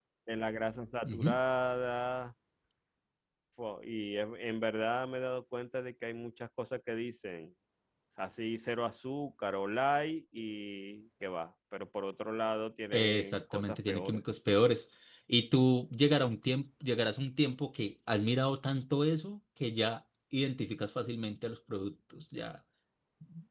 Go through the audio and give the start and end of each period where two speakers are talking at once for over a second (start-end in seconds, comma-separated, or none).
12.9-14.2